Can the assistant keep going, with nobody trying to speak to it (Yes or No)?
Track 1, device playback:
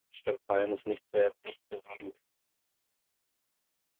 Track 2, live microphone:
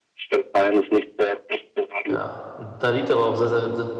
No